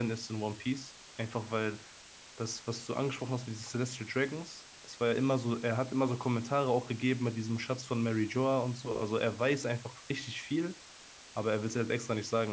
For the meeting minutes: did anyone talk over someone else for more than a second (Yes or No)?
No